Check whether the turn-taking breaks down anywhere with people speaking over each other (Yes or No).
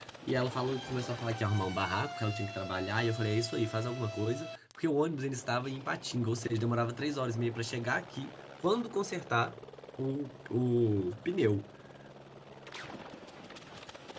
No